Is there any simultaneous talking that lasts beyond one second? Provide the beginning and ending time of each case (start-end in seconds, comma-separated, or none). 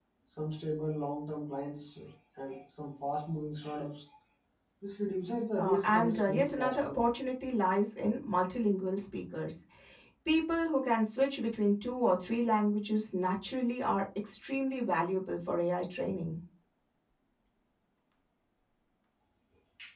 5.6-7.0